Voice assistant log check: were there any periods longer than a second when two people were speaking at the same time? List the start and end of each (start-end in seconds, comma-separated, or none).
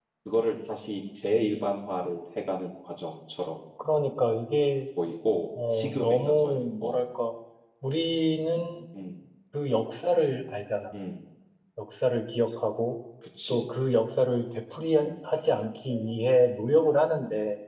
5.7-7.0